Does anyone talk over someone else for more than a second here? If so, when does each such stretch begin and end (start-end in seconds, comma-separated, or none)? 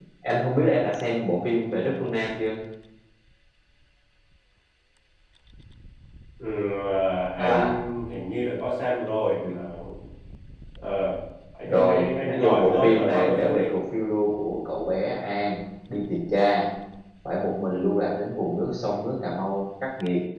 11.7-13.6